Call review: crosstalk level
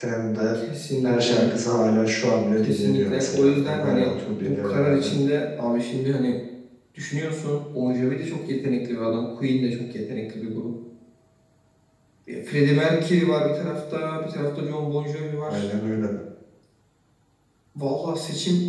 present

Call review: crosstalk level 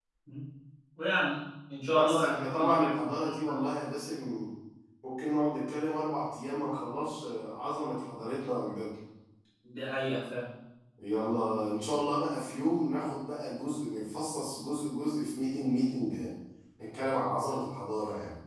present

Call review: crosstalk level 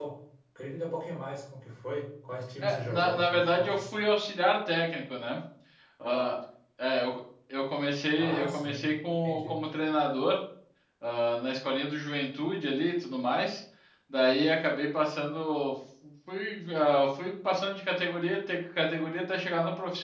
present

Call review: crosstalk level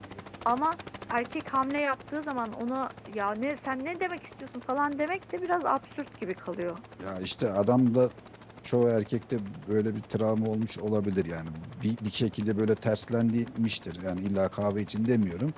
none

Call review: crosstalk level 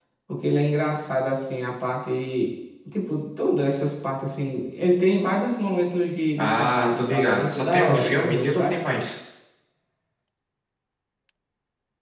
present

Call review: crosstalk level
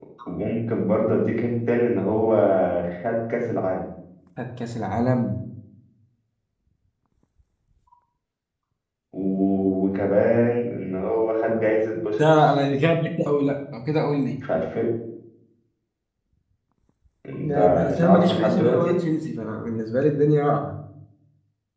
present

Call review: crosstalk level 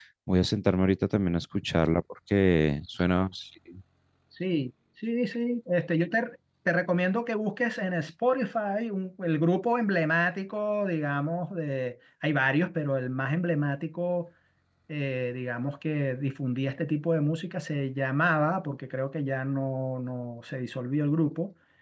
none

